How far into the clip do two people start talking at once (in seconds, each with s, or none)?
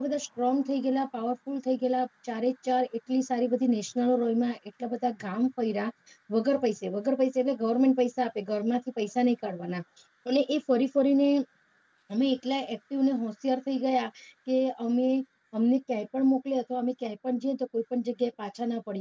none